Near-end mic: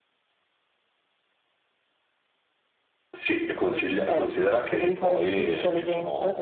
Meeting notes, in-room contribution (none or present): present